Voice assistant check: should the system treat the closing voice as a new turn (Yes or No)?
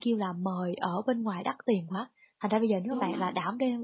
No